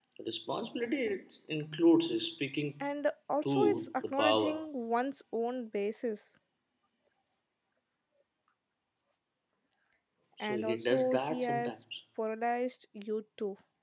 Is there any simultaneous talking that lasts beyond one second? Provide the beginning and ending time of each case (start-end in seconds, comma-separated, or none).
3.4-4.6, 10.4-11.7